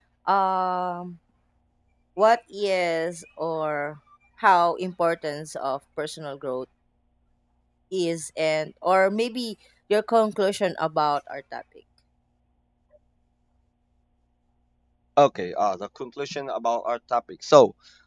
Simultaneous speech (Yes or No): No